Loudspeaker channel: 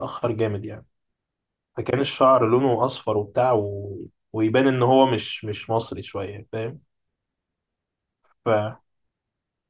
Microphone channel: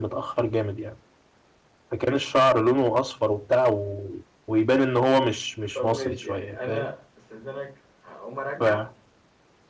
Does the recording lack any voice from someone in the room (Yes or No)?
No